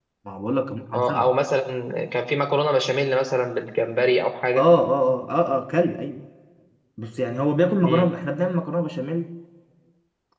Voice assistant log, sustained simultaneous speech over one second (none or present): none